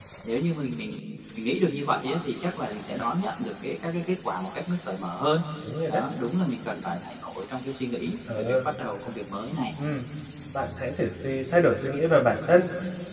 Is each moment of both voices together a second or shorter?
Yes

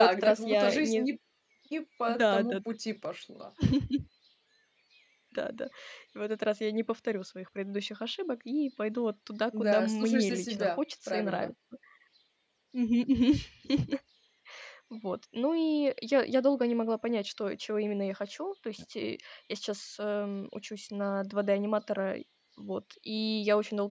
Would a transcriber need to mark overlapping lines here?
Yes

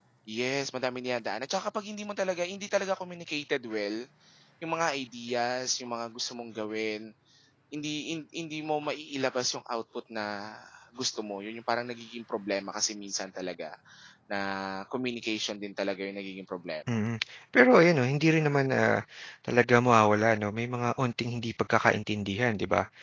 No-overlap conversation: Yes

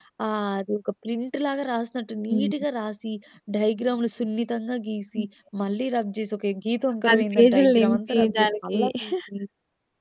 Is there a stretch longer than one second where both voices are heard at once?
Yes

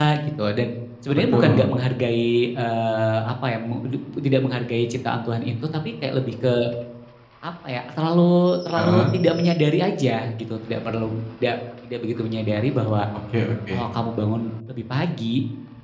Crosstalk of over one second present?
No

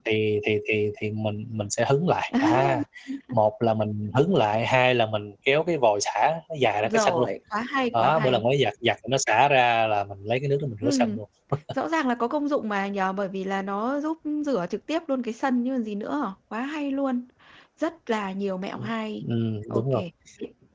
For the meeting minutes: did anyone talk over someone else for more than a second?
No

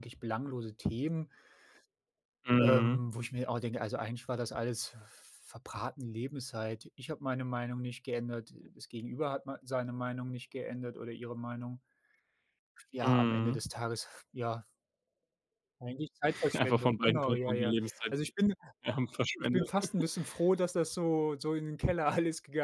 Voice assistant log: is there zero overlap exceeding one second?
No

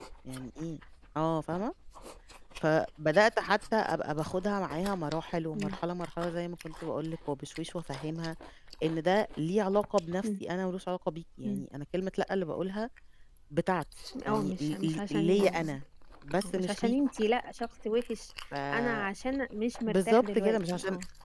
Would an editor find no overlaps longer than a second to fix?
No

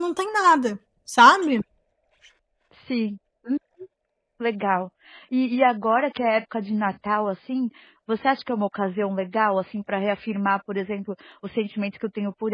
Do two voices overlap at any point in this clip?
No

